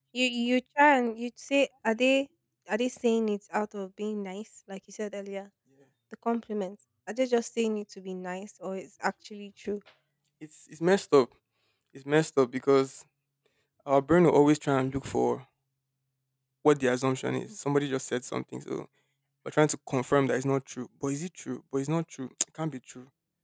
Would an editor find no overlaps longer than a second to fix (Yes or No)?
Yes